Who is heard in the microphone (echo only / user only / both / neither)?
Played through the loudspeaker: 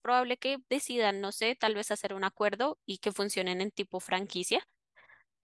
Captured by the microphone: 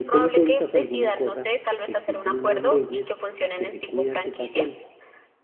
both